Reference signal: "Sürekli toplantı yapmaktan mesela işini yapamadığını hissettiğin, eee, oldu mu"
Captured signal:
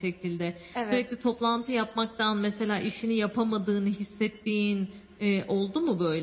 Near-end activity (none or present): present